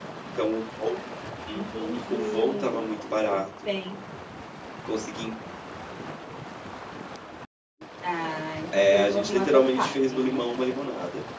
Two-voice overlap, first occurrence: 1.5 s

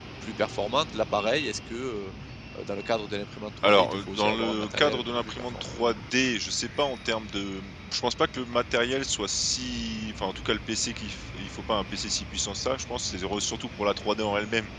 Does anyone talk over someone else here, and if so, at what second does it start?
3.6 s

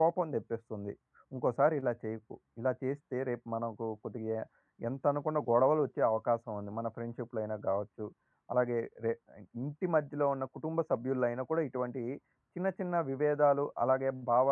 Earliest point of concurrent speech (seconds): none

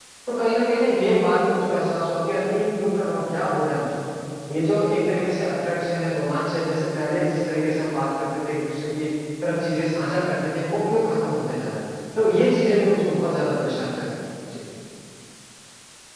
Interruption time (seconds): none

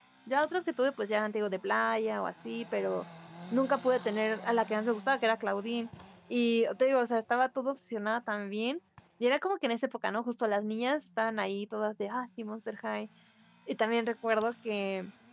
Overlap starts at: none

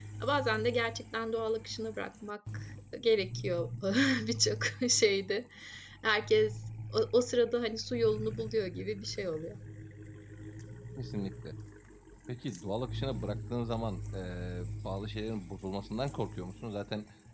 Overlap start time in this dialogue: none

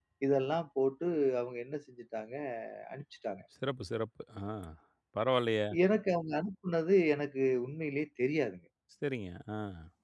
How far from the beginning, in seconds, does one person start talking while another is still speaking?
none

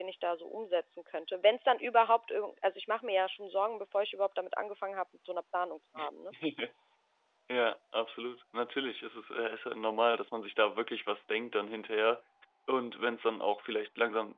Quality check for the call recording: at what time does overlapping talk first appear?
none

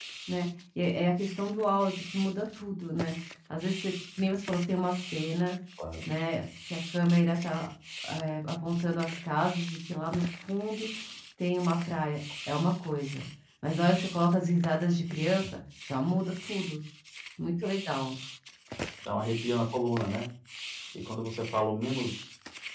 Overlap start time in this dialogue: none

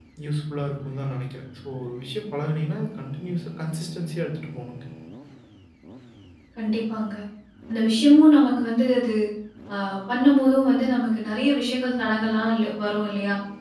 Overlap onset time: none

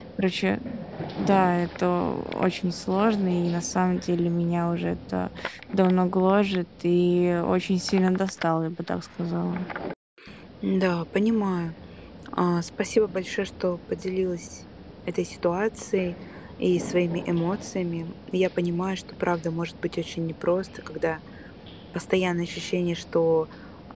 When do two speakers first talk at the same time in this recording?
none

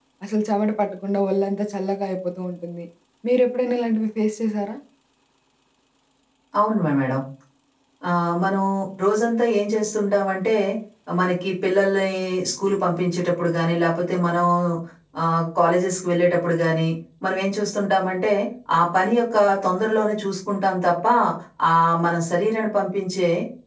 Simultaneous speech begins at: none

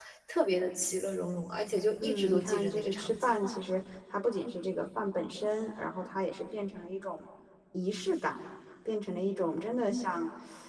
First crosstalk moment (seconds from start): 2.0 s

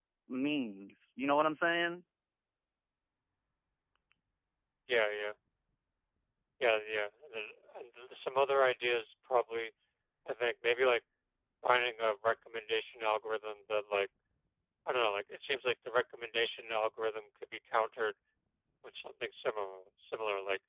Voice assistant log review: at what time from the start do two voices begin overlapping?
none

